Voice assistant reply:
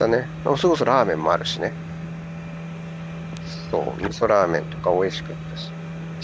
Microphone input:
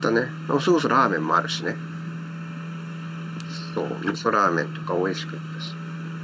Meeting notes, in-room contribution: none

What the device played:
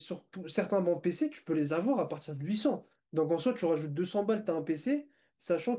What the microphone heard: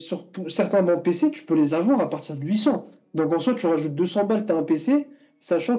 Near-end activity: none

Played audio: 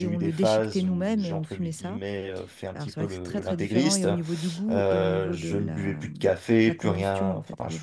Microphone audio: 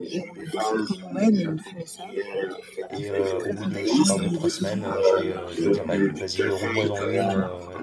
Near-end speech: present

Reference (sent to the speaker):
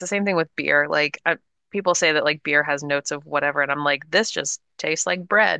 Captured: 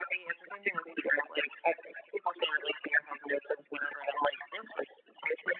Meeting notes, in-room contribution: none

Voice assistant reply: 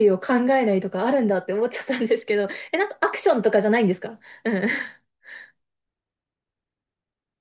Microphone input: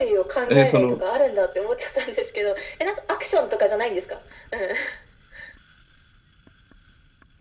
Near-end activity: present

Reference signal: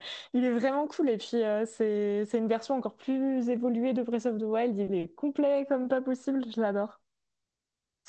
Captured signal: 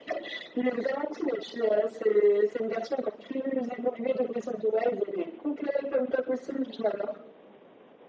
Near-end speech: none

